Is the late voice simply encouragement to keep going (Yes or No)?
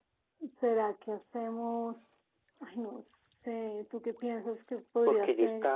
No